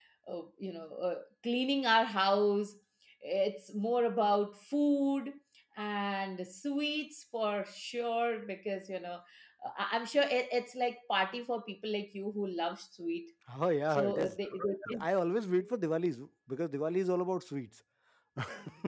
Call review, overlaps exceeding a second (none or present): none